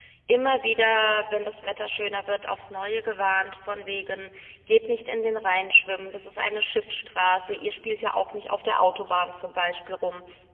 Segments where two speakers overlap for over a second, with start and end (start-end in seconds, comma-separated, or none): none